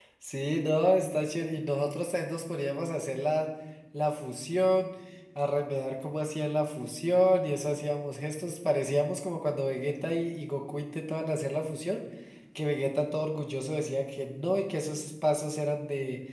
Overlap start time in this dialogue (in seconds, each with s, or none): none